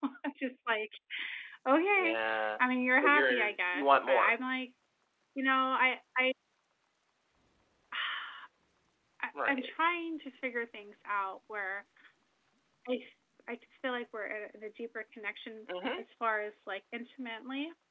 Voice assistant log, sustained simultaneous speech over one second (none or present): present